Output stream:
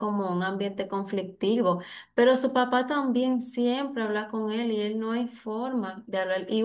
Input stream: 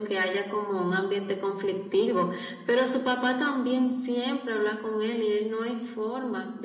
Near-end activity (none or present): none